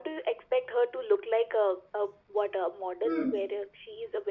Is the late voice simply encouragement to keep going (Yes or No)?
Yes